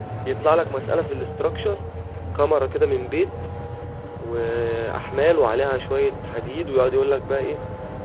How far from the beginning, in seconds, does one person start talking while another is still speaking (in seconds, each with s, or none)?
none